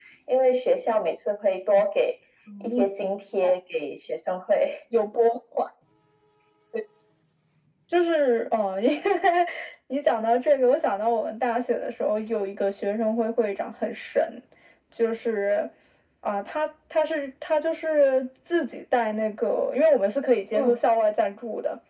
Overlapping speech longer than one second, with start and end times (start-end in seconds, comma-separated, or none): none